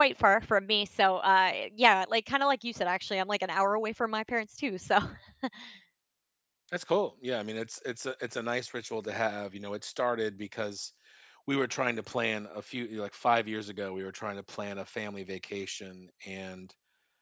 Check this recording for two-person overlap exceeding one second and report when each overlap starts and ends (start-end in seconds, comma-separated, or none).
none